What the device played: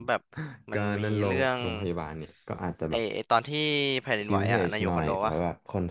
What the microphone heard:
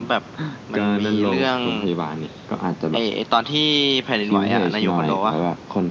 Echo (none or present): present